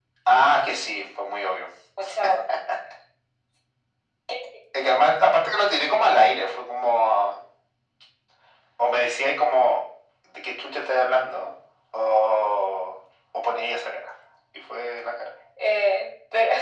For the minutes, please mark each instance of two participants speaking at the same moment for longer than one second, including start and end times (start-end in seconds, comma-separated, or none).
none